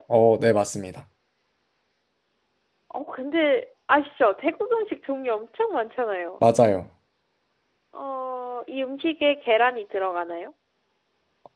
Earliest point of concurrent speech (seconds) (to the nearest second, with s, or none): none